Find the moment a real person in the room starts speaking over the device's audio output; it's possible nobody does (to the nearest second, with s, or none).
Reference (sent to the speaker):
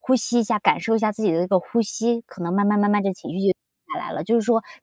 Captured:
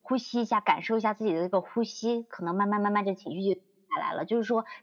none